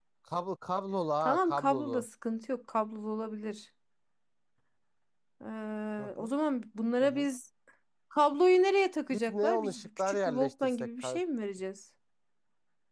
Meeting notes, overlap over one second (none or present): present